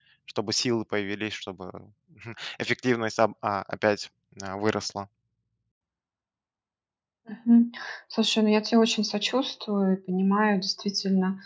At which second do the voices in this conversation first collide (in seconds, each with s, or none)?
none